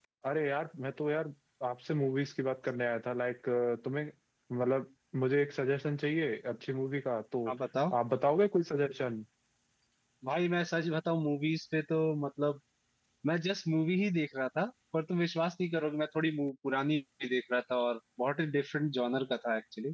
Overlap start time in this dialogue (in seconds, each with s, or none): none